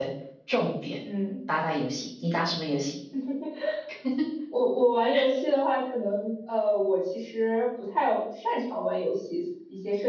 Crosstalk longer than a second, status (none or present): none